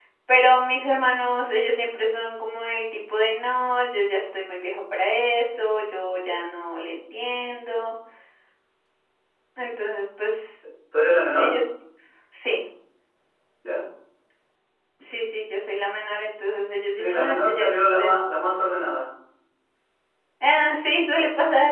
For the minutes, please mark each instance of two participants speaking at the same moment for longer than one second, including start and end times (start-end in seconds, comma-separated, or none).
17.0-18.2